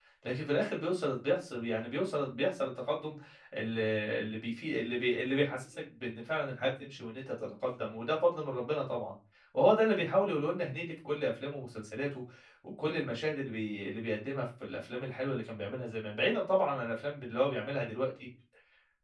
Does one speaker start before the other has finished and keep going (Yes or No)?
No